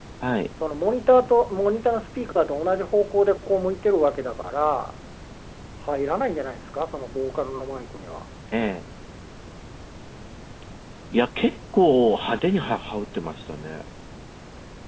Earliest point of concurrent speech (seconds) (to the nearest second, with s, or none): none